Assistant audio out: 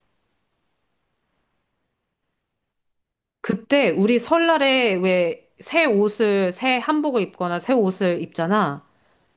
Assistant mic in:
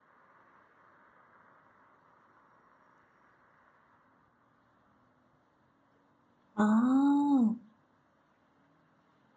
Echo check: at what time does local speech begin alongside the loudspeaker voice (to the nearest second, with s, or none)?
7 s